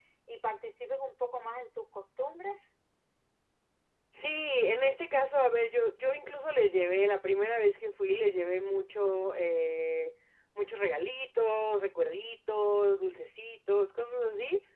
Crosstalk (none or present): none